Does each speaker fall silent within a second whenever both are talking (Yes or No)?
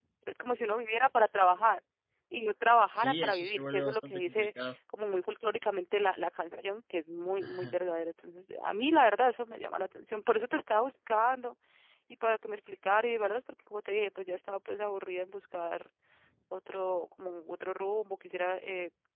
No